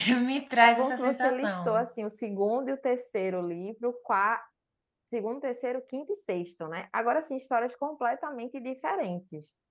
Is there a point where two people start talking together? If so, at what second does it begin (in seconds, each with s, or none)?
0.6 s